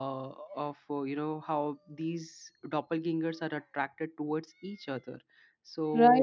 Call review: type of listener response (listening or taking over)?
taking over